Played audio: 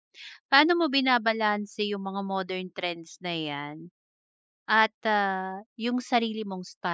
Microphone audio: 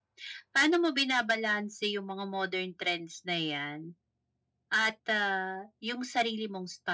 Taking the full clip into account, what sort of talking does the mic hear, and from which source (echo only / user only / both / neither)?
echo only